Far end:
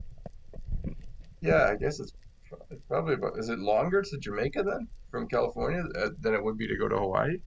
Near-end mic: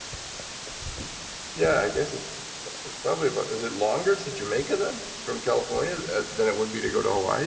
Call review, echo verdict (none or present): present